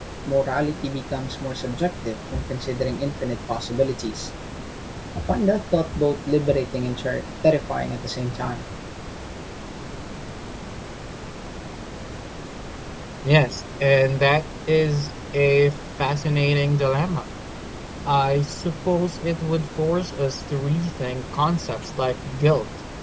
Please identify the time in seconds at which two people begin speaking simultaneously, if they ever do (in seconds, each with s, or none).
none